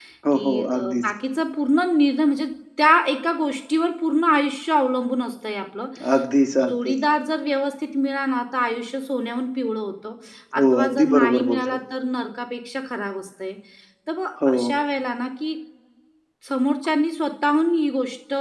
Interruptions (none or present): present